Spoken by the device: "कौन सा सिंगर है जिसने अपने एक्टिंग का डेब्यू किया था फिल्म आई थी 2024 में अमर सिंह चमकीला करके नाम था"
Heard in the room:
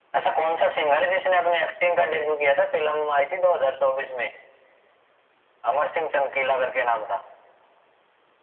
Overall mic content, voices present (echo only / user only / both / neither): echo only